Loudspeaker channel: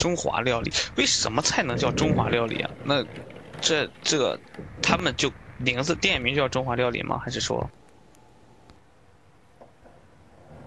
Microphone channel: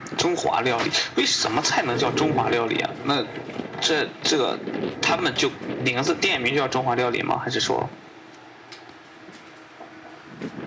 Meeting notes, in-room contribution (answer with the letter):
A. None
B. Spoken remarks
A